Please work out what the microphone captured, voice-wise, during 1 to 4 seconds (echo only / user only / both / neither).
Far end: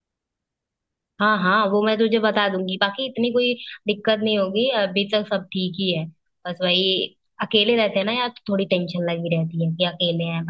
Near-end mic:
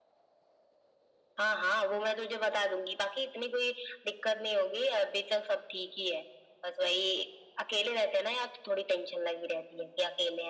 echo only